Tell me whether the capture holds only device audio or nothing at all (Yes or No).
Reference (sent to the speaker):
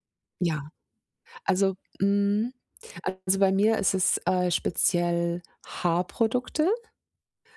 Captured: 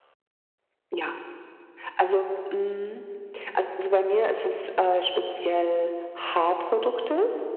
Yes